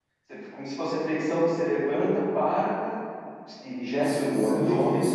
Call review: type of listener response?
taking over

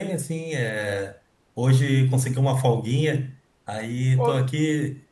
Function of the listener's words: listening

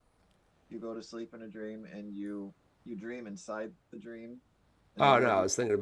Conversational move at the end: taking over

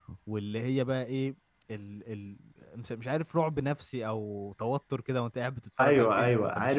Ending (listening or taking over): taking over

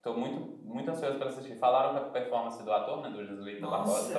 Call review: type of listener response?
taking over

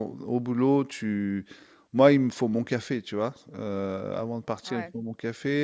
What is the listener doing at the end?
listening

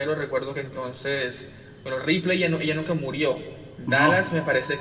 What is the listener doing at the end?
listening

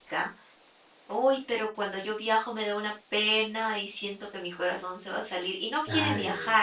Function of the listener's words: listening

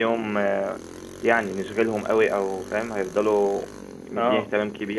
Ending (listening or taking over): listening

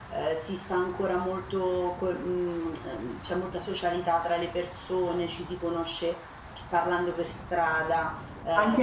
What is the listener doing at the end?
taking over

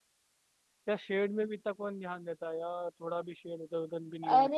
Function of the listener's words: taking over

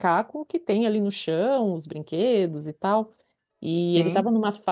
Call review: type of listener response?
listening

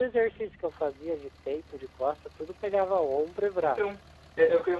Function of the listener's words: taking over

